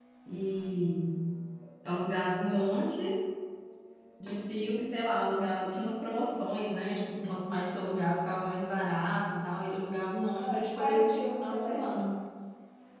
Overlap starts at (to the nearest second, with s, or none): 10 s